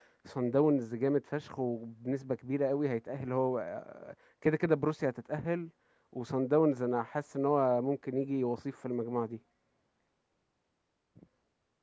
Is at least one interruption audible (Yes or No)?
No